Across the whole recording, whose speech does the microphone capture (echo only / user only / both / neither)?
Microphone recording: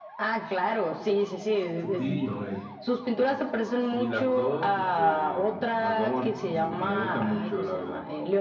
both